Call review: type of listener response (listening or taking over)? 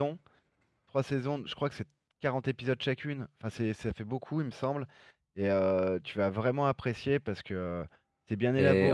taking over